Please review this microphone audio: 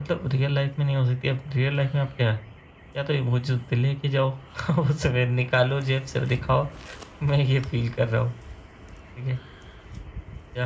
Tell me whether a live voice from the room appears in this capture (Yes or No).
Yes